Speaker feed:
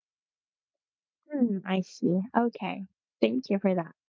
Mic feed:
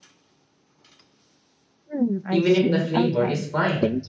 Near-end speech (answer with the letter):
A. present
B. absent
A